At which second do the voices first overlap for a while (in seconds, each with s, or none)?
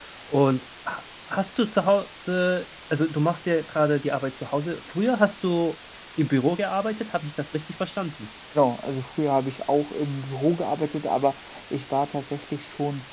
none